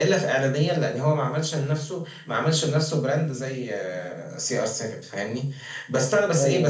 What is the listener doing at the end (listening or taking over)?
listening